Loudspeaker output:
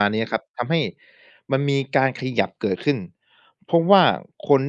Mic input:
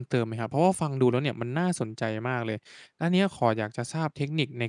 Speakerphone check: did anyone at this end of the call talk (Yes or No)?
Yes